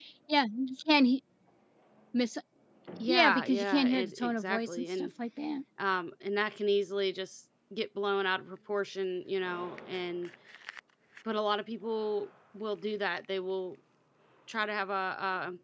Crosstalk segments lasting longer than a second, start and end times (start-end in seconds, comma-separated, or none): 3.1-5.1